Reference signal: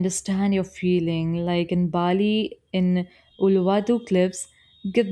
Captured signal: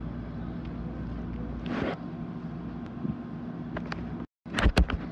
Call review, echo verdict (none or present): none